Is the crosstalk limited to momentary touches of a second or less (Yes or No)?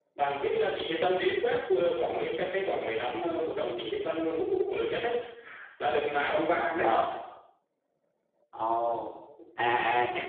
Yes